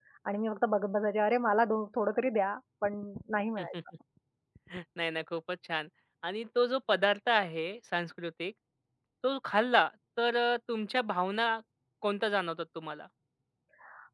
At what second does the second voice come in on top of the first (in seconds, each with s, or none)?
none